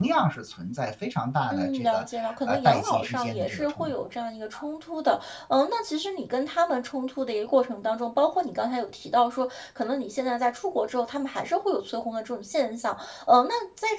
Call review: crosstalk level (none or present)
present